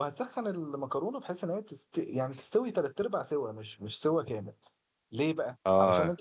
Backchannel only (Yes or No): Yes